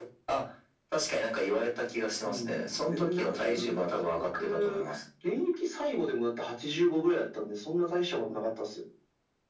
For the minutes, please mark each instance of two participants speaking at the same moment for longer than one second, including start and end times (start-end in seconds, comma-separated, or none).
2.2-4.8